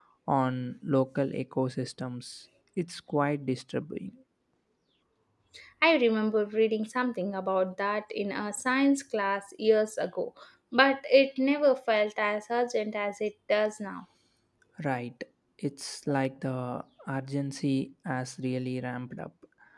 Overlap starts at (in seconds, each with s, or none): none